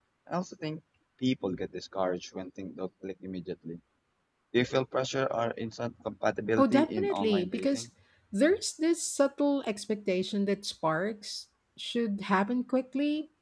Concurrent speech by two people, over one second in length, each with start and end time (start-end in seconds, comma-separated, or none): 6.6-7.8